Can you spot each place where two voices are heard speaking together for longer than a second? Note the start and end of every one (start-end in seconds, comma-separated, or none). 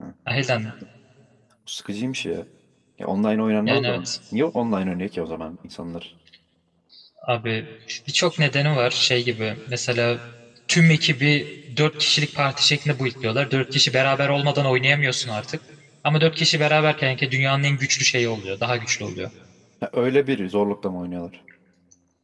none